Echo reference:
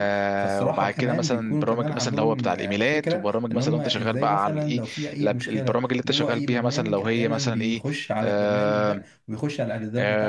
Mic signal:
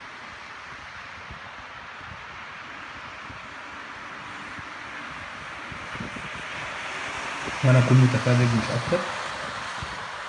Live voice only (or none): وانا اكون متفرج مش اكتر